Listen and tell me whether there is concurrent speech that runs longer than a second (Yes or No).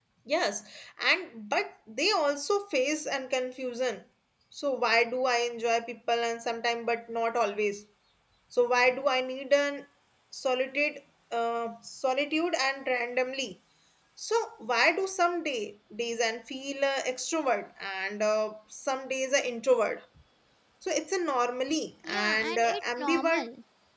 Yes